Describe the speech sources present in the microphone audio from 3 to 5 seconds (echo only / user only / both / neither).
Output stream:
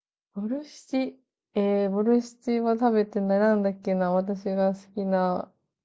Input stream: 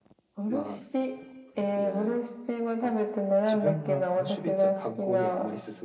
both